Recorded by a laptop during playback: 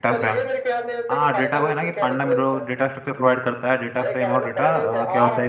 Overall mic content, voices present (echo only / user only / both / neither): both